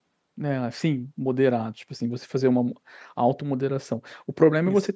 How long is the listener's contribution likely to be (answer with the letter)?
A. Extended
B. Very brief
B